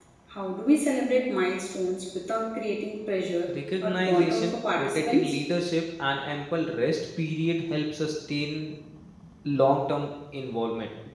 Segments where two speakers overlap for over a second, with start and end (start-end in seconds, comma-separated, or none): 3.5-5.4